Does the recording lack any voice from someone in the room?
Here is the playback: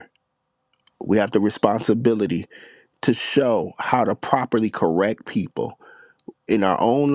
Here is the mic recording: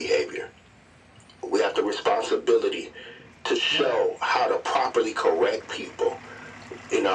No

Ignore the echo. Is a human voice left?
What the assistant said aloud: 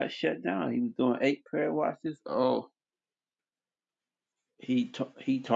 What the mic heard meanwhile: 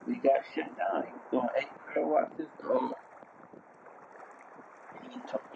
No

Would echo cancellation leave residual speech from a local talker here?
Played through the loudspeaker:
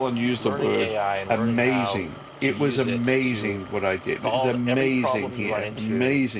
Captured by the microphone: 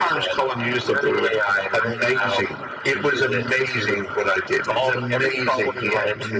No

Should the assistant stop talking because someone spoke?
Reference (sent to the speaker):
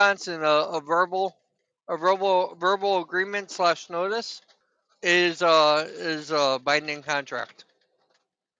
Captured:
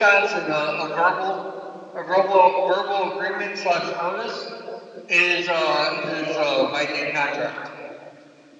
No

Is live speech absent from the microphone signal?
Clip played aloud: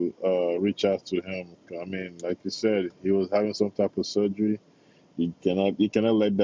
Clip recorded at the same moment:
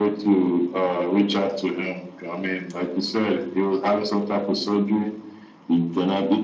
Yes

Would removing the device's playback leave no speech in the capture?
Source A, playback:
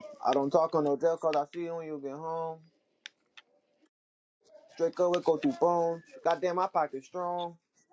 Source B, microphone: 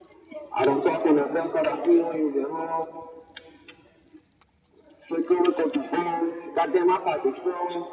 Yes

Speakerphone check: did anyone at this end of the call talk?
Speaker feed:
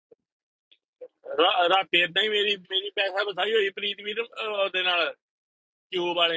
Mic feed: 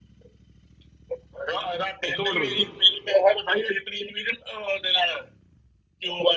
Yes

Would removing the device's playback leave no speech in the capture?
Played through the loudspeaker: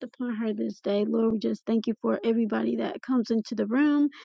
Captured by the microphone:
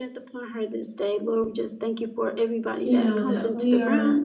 No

